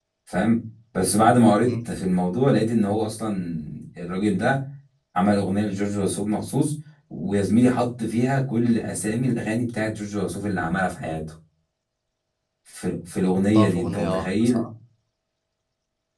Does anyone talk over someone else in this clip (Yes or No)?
Yes